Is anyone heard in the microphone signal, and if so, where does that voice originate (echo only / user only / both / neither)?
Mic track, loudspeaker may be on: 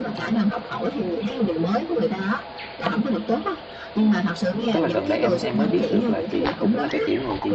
both